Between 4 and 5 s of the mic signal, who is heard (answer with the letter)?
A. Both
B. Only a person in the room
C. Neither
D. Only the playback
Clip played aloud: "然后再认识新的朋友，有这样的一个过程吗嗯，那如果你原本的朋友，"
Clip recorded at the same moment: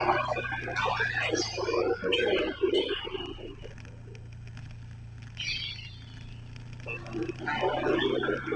C